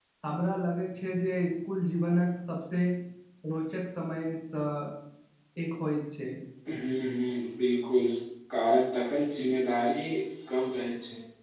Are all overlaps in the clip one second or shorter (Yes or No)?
Yes